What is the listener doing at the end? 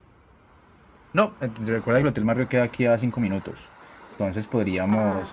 listening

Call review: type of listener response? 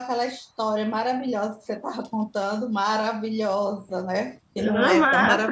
taking over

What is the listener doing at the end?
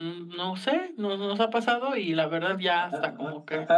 taking over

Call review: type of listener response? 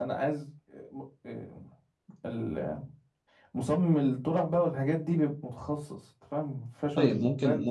taking over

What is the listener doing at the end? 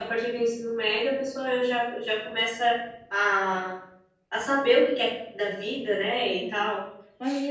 taking over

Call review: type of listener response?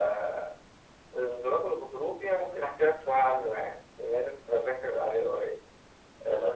taking over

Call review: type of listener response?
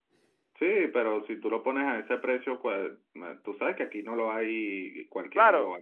taking over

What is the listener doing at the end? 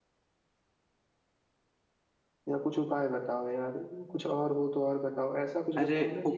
taking over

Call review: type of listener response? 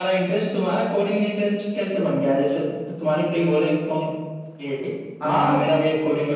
listening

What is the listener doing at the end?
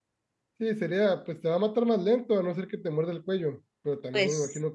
listening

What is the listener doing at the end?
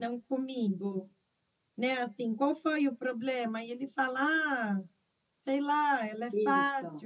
listening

